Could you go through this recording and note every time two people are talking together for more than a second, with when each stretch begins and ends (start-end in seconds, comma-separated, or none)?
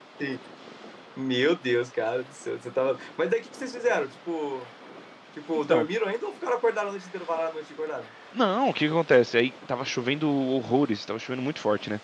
none